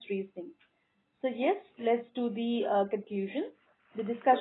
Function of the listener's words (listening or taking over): listening